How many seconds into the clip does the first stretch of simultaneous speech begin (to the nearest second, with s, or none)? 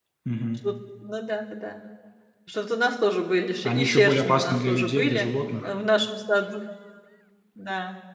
4 s